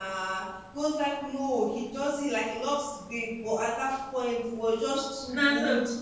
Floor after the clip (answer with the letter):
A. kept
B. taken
A